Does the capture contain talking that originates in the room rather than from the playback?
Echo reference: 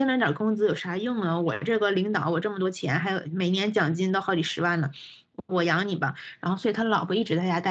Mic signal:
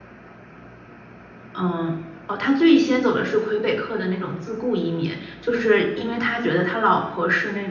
Yes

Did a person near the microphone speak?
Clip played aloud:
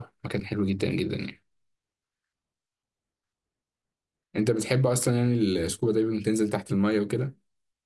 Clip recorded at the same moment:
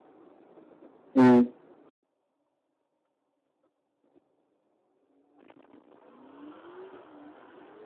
Yes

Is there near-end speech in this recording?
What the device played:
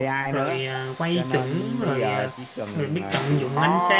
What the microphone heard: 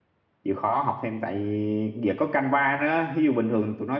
Yes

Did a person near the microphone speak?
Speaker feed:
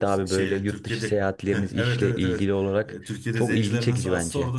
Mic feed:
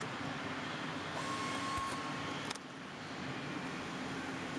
No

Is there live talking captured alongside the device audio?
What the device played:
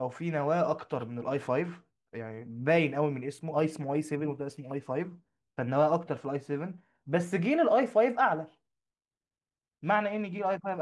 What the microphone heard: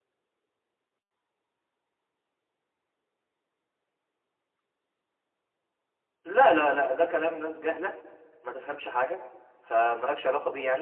Yes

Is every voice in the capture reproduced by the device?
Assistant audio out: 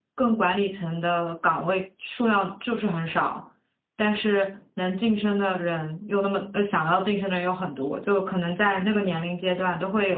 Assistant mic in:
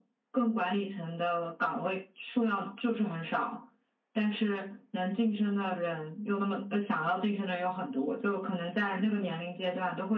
Yes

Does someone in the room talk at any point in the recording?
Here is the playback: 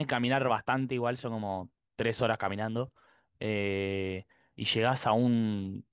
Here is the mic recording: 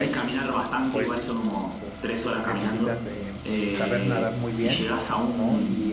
Yes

